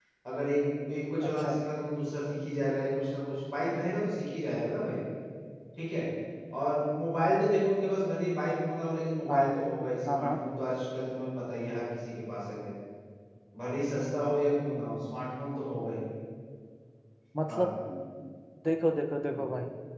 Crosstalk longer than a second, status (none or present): none